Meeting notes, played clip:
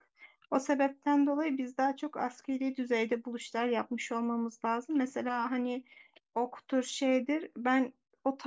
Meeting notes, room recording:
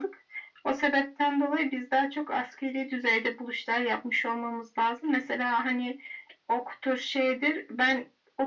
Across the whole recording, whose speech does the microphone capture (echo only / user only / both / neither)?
echo only